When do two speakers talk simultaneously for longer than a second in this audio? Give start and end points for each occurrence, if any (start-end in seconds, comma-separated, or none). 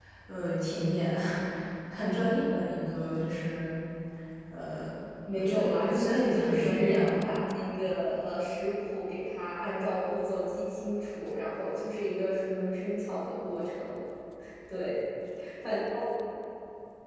5.4-7.3